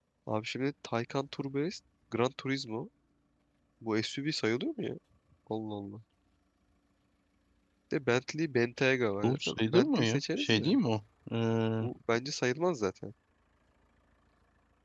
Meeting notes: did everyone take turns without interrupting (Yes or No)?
No